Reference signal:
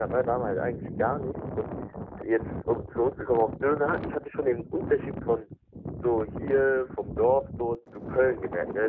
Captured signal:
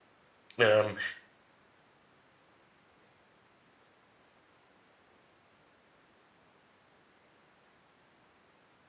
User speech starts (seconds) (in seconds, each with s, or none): 0.6 s